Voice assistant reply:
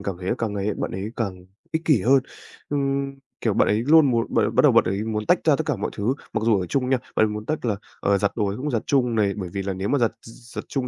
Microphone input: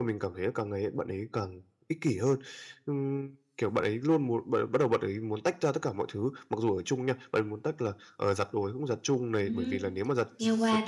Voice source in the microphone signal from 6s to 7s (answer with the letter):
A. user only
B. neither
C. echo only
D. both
C